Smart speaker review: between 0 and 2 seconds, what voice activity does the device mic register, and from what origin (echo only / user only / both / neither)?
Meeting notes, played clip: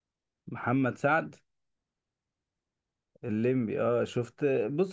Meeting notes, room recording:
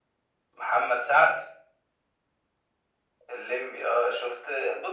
echo only